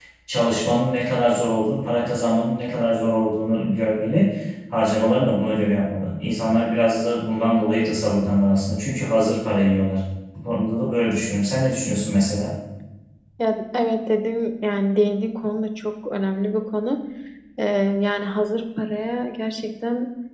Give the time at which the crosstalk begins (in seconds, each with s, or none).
none